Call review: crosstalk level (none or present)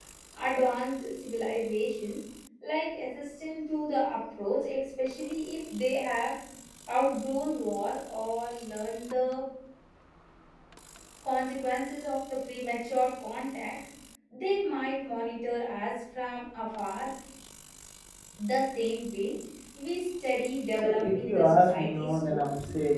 present